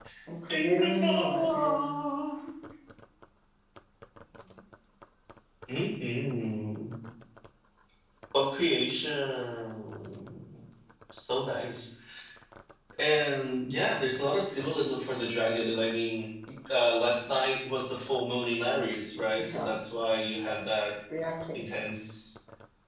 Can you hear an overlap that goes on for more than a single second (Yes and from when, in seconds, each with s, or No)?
Yes, from 0.5 s